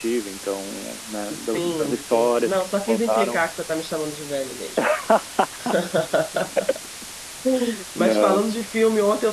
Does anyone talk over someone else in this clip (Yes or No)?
Yes